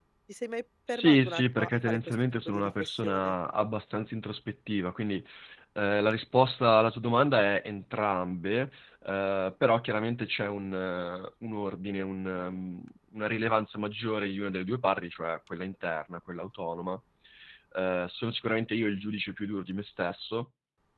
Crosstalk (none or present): present